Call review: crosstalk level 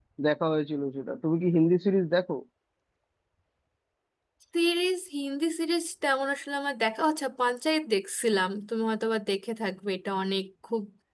none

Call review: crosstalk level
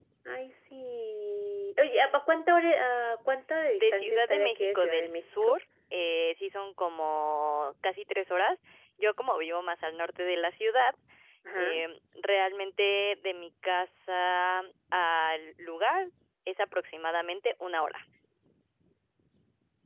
present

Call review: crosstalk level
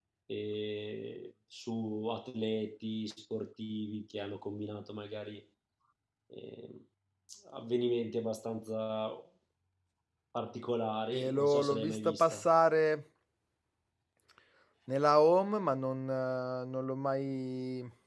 present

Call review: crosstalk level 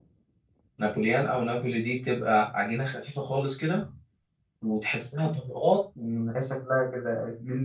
none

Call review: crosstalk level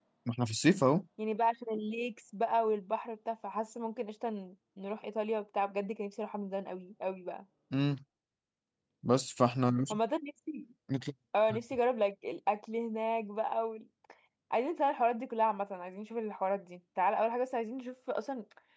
none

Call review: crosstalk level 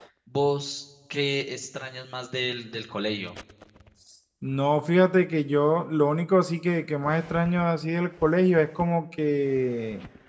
none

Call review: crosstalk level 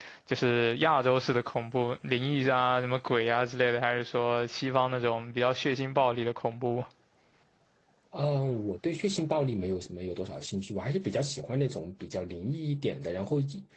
none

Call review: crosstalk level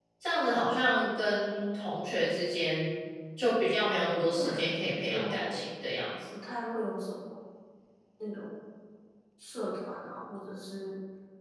present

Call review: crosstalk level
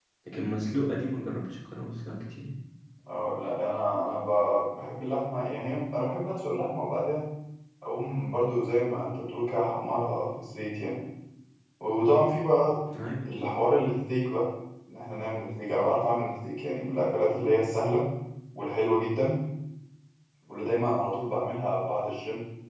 none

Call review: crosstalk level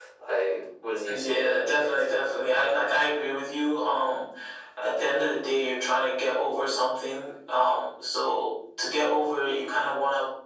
present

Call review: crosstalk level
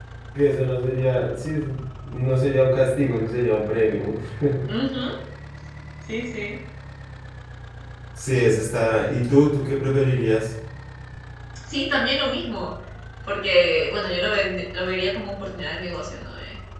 none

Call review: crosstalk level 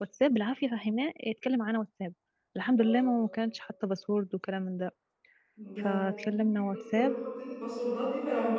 present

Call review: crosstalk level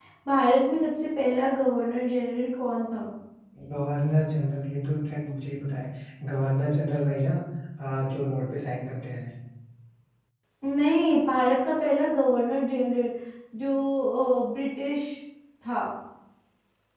none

